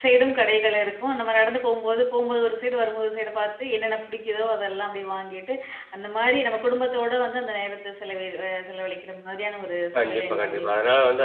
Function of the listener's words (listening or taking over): taking over